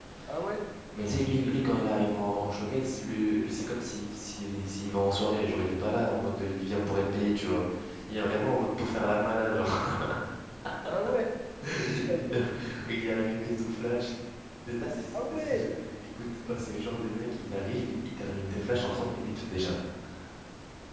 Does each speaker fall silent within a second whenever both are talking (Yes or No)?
Yes